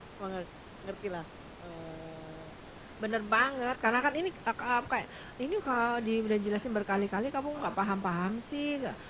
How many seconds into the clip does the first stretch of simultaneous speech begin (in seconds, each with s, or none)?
none